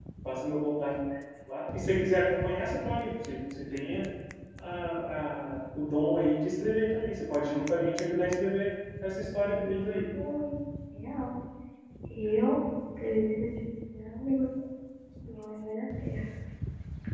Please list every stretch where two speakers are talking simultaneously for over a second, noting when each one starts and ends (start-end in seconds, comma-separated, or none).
none